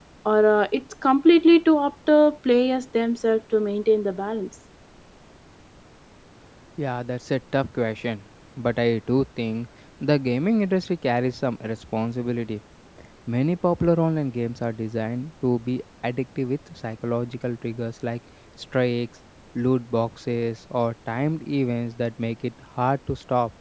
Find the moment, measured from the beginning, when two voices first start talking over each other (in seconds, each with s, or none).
none